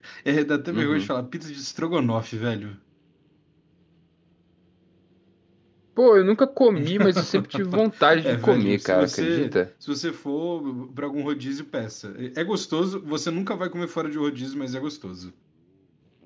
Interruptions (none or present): present